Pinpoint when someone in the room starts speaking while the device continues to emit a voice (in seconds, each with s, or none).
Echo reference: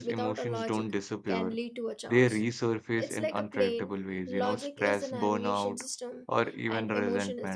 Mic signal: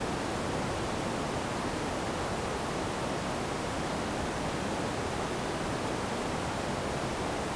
none